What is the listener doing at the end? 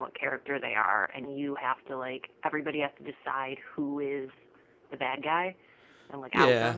taking over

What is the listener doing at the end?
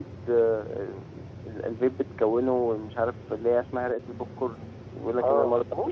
taking over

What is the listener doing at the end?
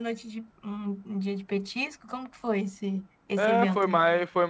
taking over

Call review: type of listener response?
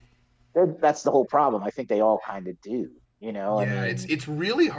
taking over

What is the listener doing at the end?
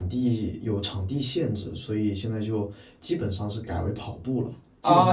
taking over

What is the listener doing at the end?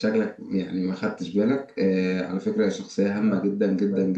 listening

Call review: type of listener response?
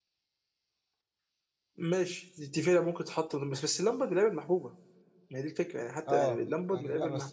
taking over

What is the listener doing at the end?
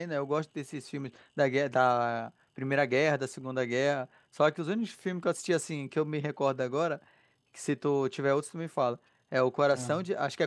listening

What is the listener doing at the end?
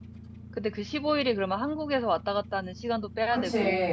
taking over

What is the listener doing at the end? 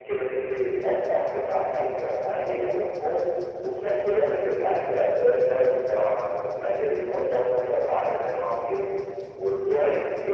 listening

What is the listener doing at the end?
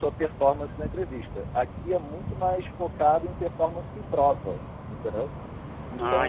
listening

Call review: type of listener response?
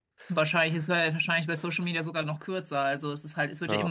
listening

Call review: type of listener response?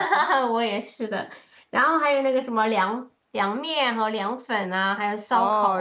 taking over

